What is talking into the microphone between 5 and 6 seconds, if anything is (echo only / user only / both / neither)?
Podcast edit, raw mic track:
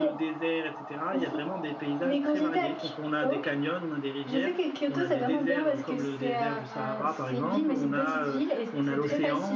both